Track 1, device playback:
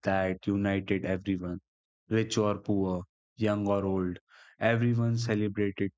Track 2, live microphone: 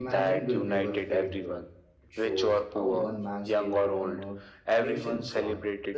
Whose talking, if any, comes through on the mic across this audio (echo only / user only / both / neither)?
both